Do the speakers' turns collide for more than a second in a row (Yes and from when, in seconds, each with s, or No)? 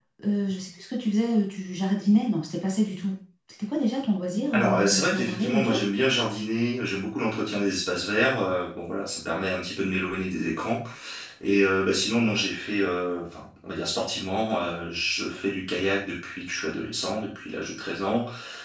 Yes, from 4.5 s